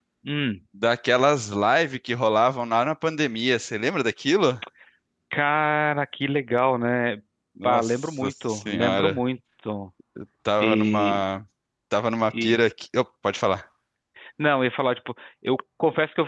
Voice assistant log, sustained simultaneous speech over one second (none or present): present